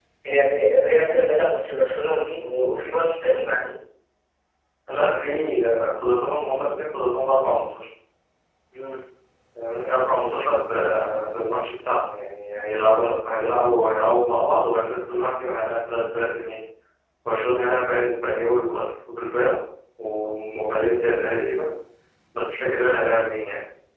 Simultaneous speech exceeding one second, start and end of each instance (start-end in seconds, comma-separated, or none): none